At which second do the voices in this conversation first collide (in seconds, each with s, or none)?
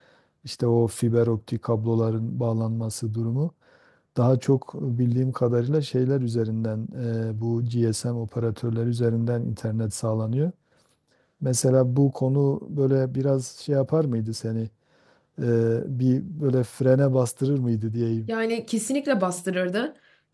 none